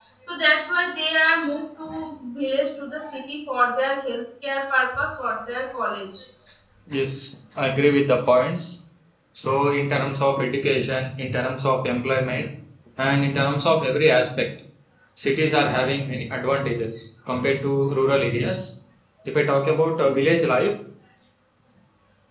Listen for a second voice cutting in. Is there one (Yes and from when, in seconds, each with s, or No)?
No